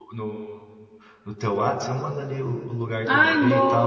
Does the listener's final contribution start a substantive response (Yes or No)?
Yes